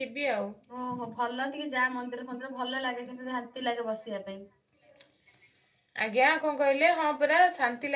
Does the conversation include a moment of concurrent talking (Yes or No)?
No